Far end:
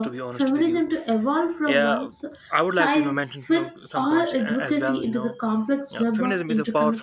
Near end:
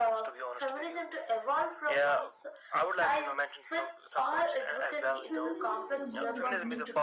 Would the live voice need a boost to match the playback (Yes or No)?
Yes